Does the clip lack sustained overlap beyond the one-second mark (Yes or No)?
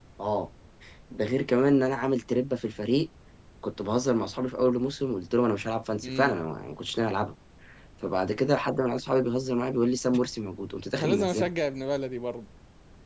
Yes